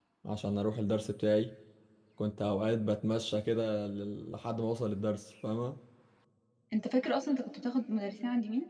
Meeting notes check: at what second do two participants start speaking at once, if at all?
none

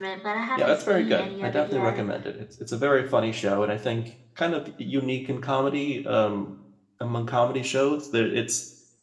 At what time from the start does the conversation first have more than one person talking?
1 s

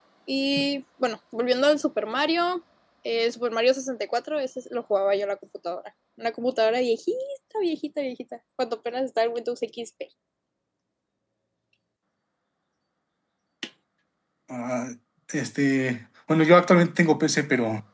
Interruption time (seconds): none

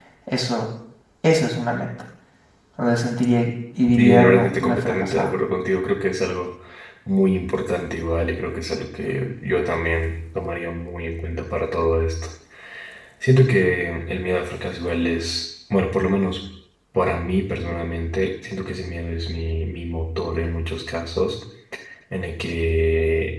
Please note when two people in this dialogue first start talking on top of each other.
4 s

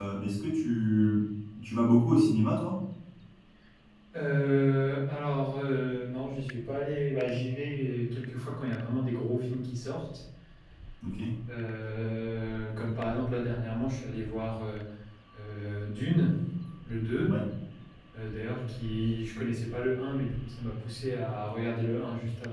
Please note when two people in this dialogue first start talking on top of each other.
none

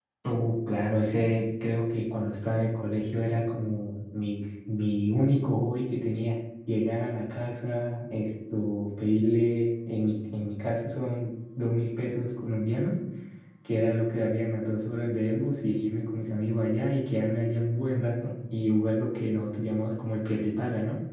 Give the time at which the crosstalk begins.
none

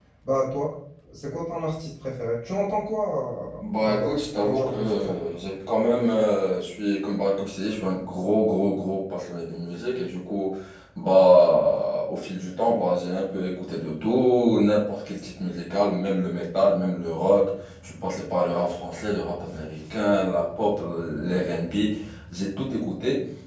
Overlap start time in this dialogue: 4 s

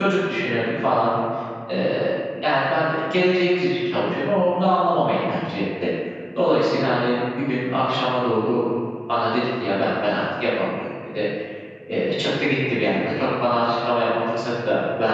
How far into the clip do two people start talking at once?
none

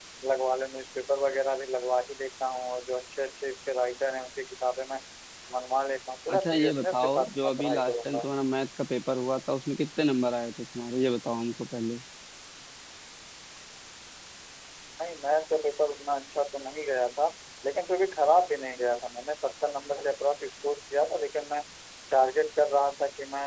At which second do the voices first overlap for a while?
6 s

